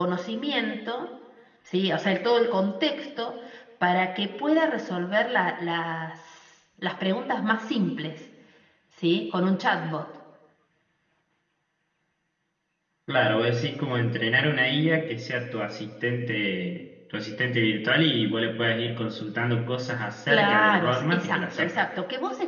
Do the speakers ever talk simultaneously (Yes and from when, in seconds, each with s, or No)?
Yes, from 20.3 s